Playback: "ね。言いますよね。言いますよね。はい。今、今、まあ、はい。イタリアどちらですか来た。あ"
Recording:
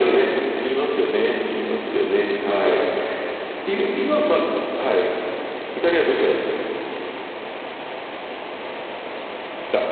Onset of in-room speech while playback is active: none

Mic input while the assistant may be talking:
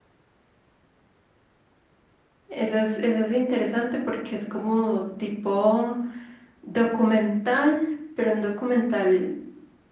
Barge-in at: 2.5 s

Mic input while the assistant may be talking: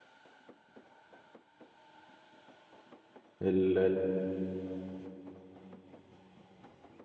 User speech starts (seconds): 3.4 s

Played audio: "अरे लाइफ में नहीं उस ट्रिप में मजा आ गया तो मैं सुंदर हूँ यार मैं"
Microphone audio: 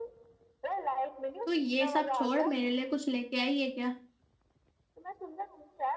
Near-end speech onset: 1.4 s

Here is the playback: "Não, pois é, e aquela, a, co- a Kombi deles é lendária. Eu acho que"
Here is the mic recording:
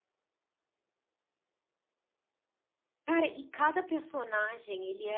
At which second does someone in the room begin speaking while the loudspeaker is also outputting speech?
3.0 s

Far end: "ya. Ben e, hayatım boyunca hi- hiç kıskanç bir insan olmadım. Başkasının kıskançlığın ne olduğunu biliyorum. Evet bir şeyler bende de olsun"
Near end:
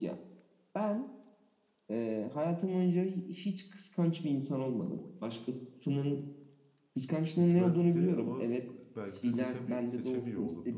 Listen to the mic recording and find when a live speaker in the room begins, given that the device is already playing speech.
7.3 s

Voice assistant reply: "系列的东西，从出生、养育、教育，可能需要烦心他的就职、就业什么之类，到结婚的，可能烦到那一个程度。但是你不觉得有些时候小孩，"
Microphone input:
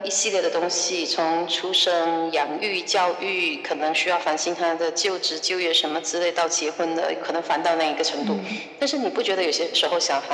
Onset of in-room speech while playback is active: 8.2 s

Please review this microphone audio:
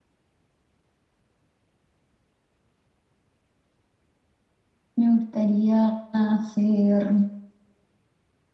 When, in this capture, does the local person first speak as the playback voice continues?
5.0 s

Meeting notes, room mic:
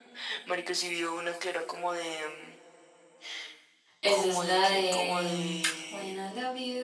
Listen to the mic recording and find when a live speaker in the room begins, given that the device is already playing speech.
4.0 s

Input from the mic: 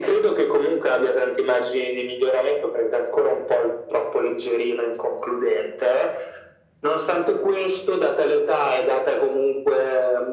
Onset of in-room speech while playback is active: none

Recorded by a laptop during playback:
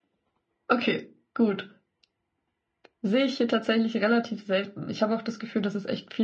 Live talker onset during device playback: none

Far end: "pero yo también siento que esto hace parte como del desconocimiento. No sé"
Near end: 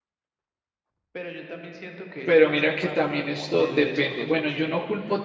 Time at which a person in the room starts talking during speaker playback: 2.2 s

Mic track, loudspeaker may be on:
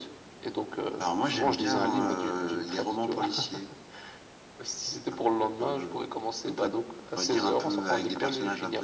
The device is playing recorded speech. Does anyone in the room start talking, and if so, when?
none

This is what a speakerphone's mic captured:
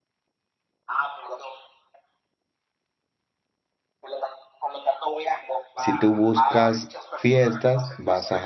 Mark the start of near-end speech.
5.7 s

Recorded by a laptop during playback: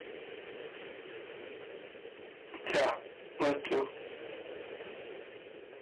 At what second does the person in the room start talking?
2.6 s

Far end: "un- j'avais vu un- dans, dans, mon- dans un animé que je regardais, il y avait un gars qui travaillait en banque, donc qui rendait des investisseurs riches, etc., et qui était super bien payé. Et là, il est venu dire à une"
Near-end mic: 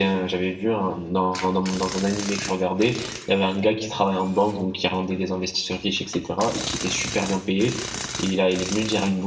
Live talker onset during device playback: none

